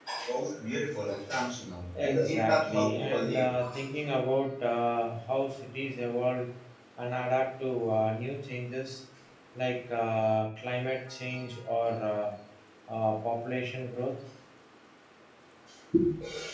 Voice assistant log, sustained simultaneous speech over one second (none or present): present